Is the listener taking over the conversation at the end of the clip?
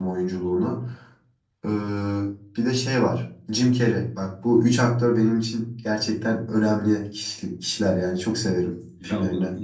Yes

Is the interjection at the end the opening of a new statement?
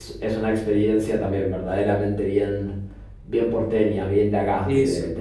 No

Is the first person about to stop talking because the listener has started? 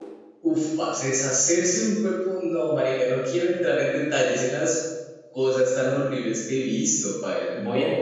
Yes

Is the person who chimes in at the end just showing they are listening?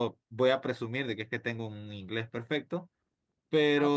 No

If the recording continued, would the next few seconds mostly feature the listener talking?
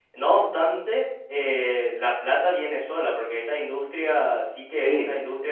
No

